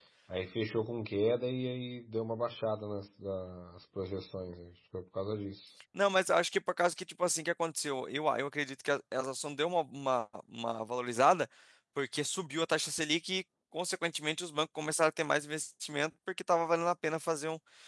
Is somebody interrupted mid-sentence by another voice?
No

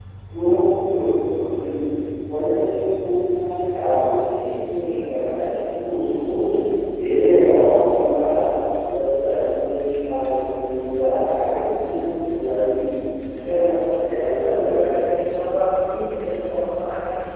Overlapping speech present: Yes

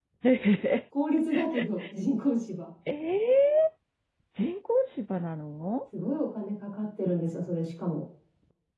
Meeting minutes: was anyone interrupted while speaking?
No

